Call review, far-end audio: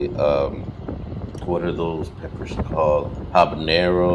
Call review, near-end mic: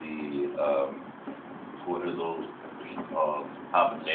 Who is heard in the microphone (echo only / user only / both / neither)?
echo only